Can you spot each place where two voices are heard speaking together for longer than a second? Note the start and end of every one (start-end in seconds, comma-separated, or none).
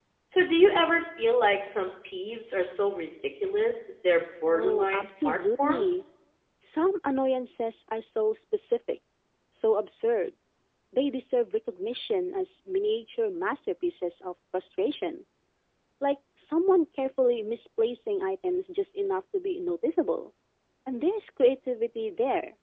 4.5-6.0